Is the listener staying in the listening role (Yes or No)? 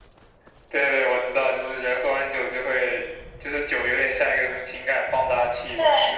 No